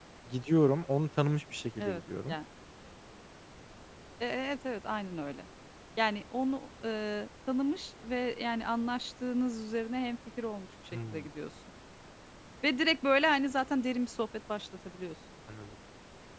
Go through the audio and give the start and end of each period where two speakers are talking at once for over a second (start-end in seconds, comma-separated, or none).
none